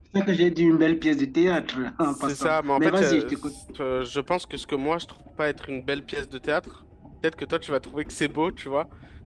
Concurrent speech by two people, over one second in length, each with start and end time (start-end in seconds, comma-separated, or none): 2.0-3.5